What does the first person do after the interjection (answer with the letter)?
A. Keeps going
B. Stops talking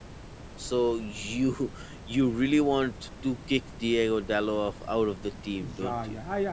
B